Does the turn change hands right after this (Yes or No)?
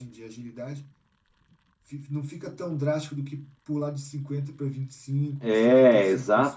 Yes